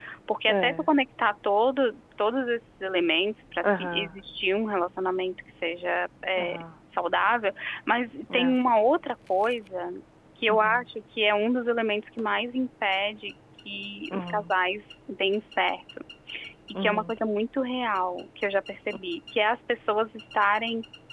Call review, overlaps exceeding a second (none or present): none